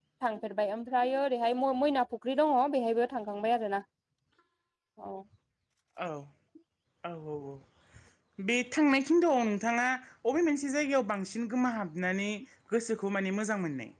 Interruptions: none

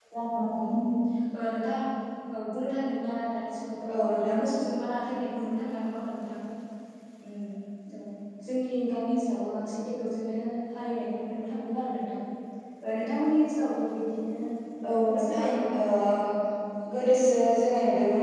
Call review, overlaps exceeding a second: present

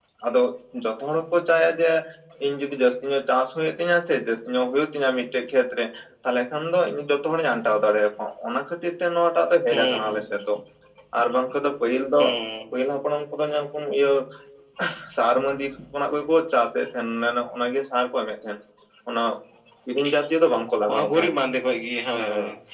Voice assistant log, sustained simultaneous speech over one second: none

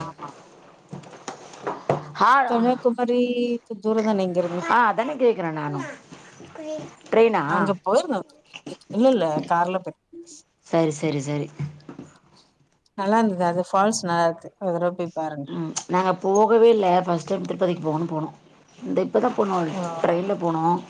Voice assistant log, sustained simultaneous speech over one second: none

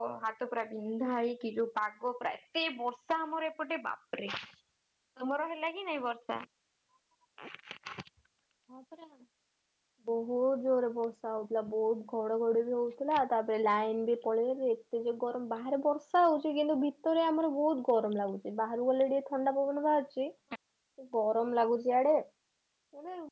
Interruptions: none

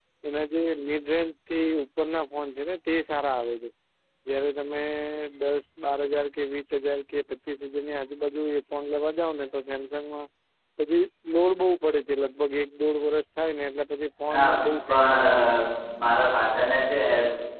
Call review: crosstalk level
present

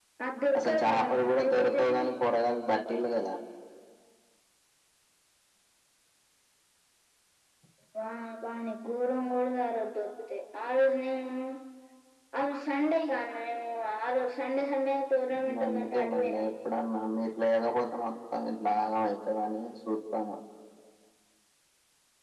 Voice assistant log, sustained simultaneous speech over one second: present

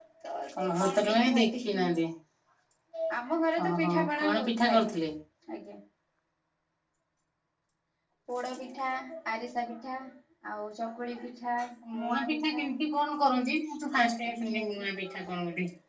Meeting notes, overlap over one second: present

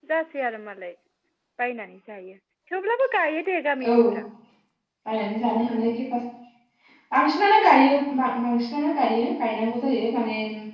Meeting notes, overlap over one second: none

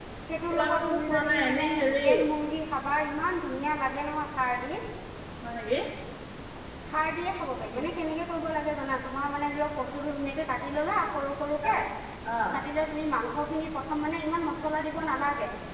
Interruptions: present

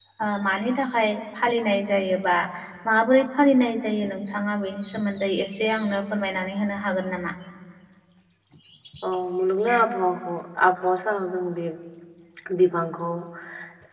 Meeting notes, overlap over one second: none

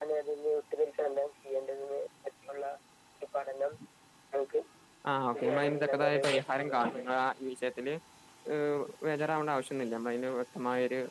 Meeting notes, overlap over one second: present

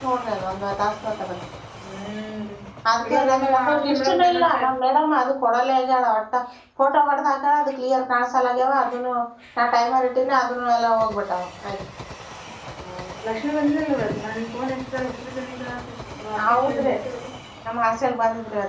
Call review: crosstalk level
present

